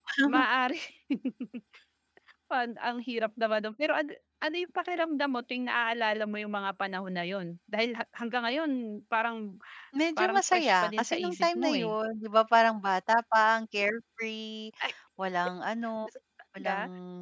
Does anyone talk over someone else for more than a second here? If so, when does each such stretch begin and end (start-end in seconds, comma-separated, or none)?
10.2-11.9